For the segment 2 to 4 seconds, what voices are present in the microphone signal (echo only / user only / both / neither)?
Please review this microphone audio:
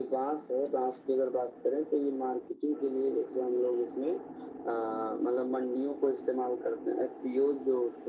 echo only